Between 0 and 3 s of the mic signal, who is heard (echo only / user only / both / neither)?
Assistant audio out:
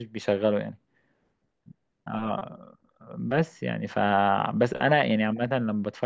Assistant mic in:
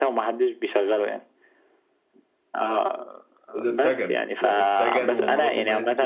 echo only